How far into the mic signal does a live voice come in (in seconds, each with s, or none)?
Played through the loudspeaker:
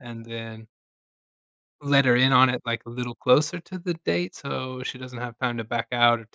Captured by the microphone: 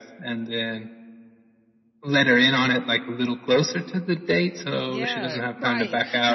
4.9 s